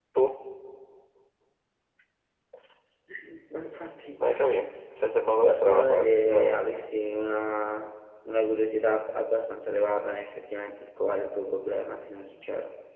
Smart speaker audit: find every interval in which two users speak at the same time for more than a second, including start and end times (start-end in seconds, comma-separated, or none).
5.4-6.8